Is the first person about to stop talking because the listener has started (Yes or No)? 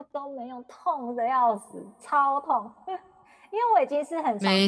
No